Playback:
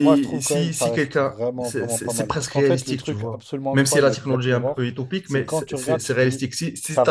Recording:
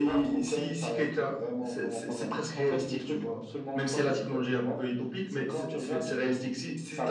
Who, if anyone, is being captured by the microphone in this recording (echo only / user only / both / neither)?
echo only